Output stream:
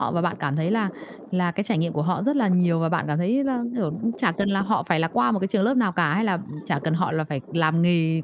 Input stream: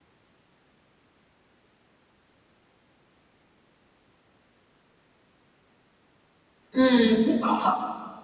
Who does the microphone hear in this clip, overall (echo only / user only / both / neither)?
user only